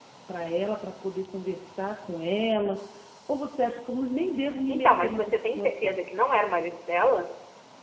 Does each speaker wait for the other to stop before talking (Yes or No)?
No